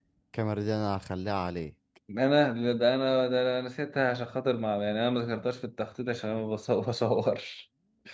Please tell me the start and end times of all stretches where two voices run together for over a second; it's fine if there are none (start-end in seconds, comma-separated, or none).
none